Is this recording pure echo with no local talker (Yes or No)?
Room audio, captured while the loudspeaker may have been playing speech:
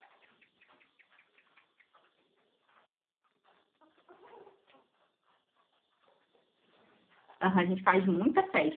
No